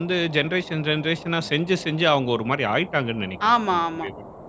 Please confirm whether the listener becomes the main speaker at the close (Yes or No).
Yes